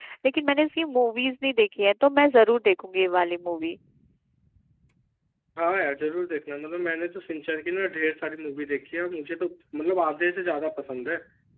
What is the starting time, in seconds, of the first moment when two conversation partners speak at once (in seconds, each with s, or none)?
none